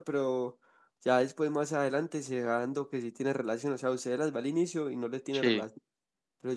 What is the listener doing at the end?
listening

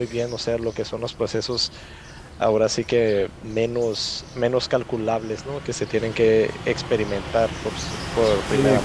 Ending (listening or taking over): taking over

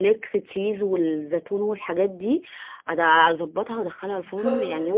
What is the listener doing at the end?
taking over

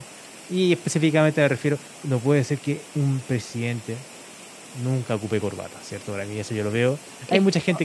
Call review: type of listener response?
listening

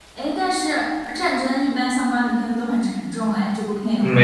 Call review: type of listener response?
taking over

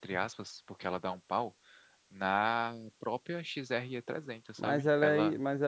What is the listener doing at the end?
taking over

